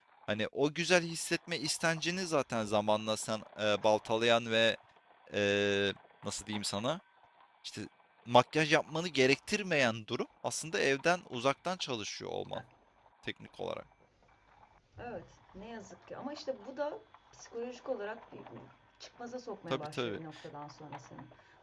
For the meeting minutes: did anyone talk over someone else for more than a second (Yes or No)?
No